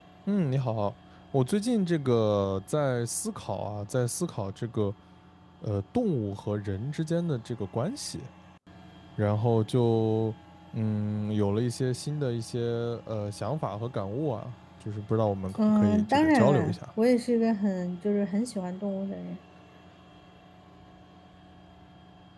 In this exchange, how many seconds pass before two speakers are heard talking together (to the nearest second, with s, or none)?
16 s